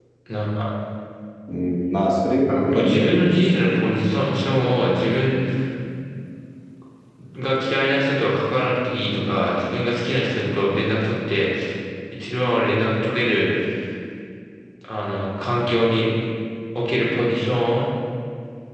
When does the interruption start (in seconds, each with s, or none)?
2.5 s